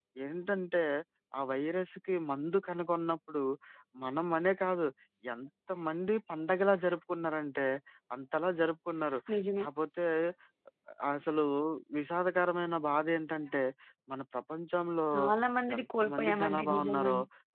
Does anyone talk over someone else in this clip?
Yes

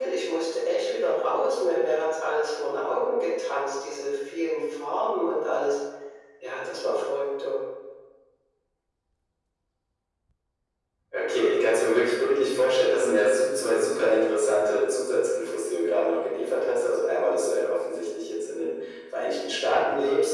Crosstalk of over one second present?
No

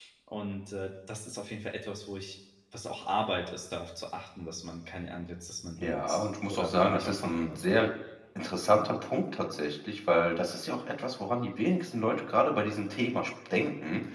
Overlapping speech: Yes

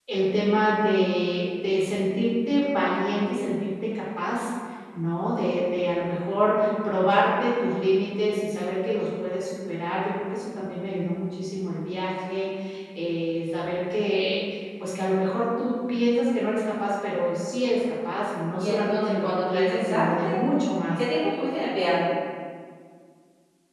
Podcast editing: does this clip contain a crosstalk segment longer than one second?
Yes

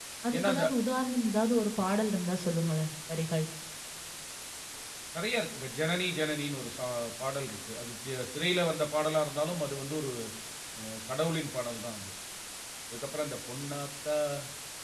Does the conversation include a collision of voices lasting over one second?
No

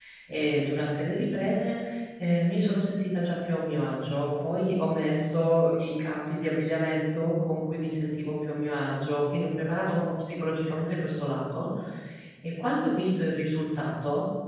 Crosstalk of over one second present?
No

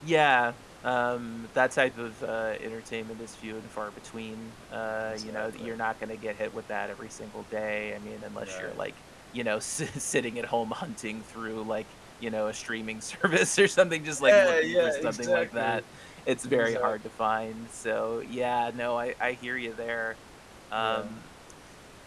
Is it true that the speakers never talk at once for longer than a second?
No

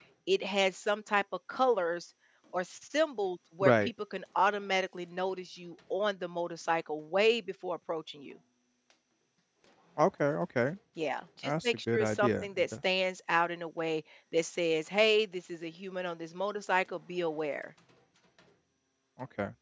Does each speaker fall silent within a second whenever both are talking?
No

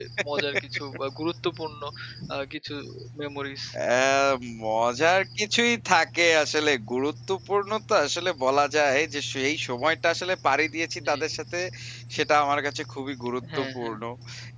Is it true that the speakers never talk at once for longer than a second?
Yes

